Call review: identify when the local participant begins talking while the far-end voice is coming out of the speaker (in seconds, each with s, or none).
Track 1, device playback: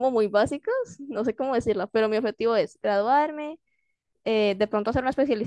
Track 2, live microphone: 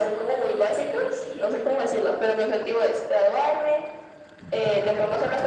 none